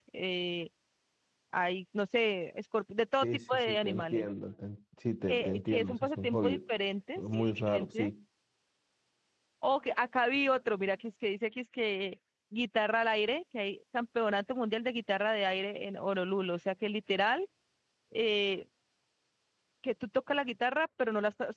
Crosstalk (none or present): present